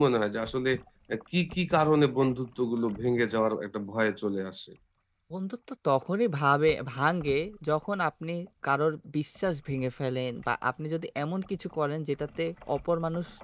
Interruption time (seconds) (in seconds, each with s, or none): none